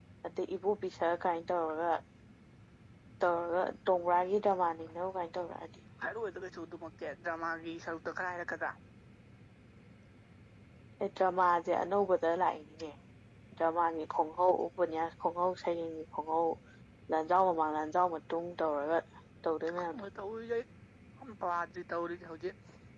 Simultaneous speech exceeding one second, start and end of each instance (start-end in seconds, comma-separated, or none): none